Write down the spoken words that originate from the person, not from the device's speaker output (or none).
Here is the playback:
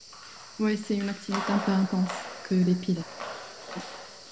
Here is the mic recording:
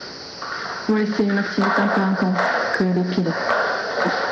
none